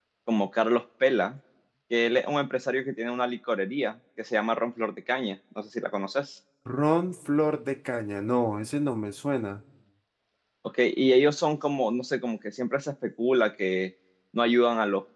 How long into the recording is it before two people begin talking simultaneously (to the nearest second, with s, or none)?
none